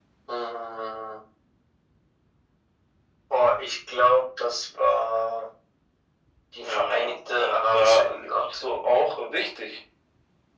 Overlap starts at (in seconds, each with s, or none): 6.6 s